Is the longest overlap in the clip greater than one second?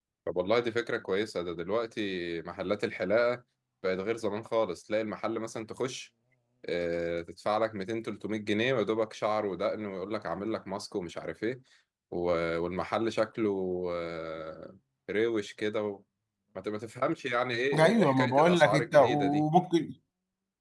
Yes, from 17.7 s

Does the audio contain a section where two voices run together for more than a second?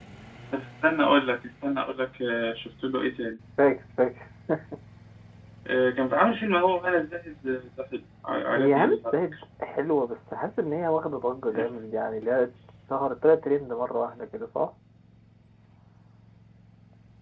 No

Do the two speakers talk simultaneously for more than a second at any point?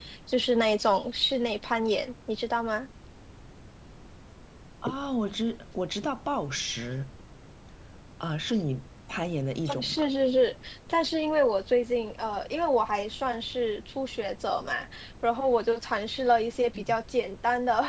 No

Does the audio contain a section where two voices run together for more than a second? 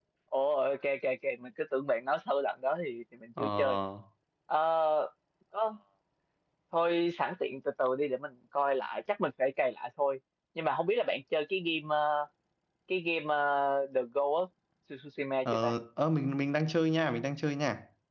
No

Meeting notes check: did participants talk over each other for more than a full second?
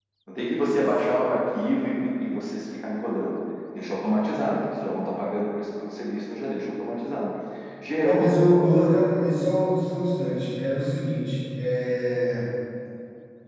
No

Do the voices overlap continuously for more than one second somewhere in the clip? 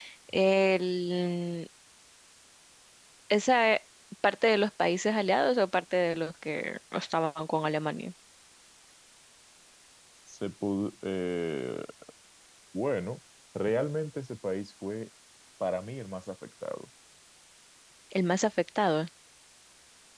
No

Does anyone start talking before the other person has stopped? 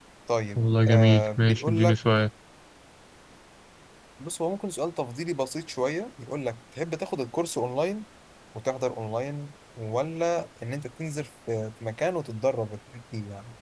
Yes, from 0.6 s

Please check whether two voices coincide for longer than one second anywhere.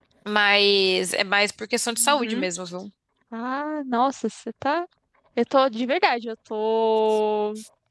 No

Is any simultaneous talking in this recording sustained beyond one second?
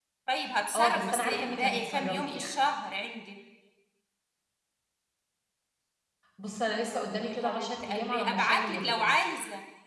Yes, from 0.8 s

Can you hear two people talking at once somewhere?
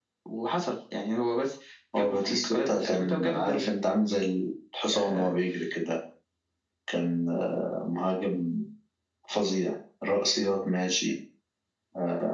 Yes, from 2.0 s

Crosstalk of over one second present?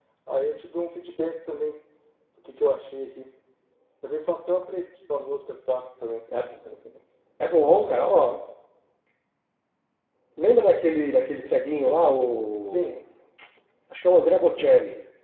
No

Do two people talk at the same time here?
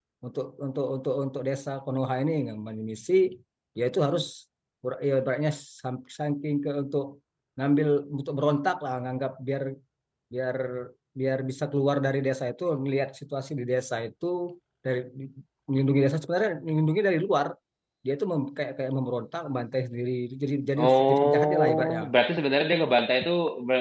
Yes, from 20.8 s

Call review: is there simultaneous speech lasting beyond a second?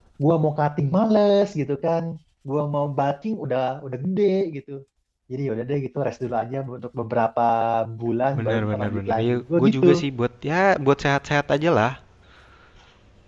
Yes, from 8.4 s

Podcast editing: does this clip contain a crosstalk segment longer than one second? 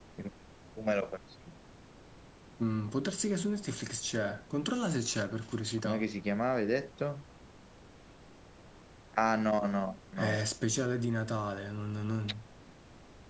No

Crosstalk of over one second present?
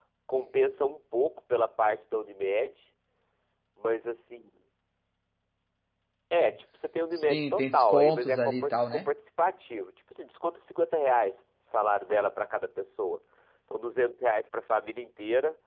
Yes, from 7.1 s

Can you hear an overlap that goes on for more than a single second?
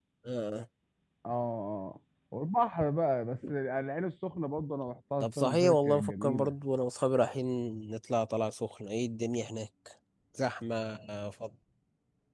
Yes, from 5.2 s

